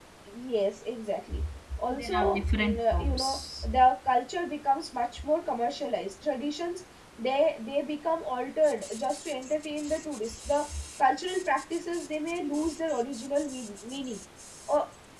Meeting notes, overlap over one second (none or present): present